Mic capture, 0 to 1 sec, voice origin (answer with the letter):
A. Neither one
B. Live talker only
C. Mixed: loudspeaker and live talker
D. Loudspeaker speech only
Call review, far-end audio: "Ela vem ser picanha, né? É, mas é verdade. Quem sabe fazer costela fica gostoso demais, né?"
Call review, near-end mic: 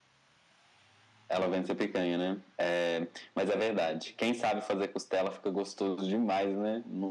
A